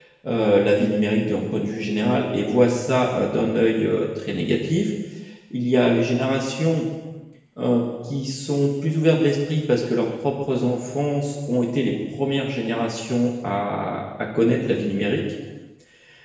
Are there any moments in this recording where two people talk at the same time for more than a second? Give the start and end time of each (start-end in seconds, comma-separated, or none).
none